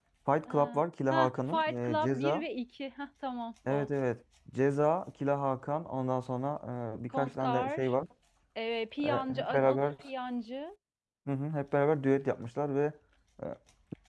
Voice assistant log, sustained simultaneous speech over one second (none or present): present